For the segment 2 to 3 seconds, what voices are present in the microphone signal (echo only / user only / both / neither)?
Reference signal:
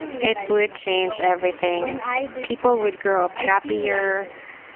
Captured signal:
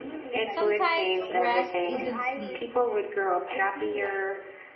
both